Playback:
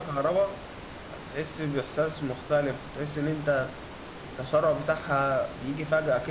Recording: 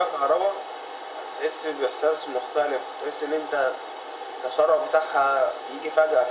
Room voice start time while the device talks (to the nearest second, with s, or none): none